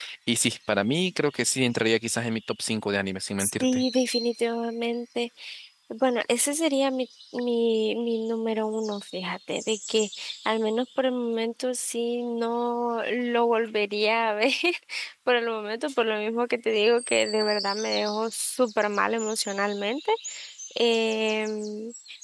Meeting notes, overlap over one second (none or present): none